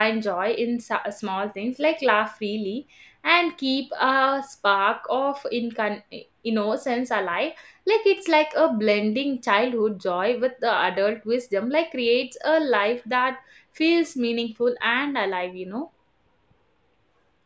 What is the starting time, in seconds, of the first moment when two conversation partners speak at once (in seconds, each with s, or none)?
none